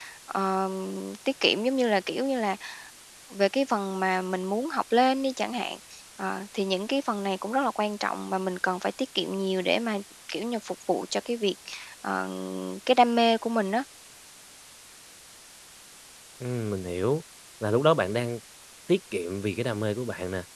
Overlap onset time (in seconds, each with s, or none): none